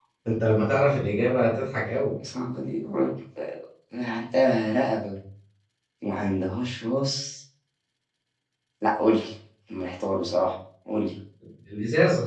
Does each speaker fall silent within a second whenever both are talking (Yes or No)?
Yes